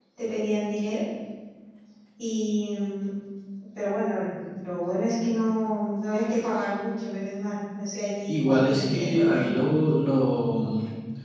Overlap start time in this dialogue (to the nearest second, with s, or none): 8 s